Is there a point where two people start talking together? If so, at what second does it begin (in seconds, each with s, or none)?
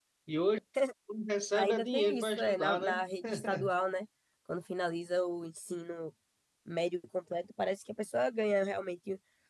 1.5 s